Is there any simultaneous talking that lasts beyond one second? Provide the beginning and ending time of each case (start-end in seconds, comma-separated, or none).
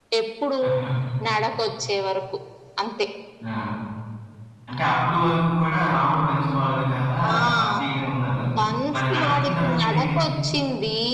9.0-10.2